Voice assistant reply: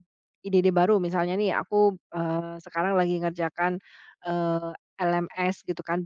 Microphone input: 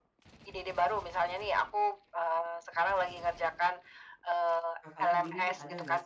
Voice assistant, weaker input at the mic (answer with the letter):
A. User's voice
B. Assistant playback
A